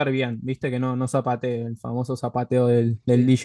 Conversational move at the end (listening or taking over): listening